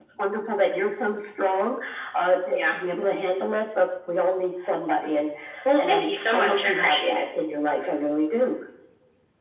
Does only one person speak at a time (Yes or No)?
No